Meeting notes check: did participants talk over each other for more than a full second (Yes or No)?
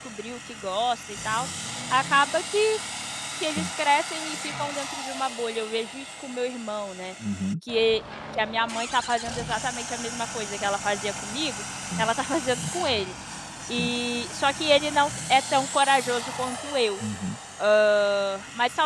No